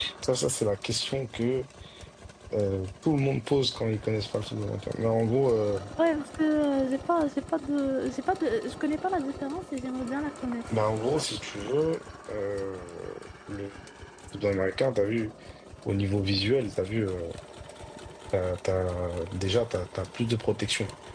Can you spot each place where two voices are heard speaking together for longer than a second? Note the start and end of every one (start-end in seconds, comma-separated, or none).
none